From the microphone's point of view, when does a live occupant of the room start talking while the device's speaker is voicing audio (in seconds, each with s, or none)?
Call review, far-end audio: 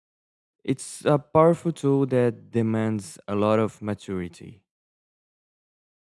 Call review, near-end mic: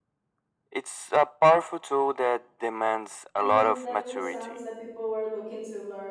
3.4 s